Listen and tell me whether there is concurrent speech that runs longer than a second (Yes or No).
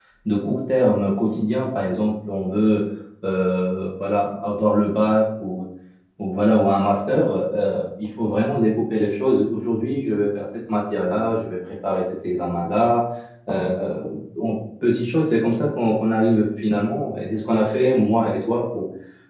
No